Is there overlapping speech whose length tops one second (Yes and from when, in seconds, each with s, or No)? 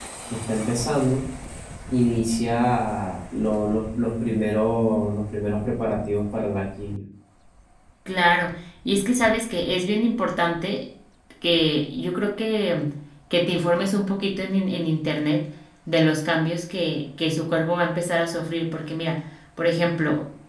No